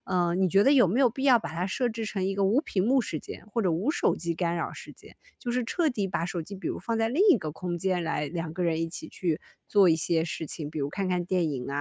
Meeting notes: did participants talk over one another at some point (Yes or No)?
No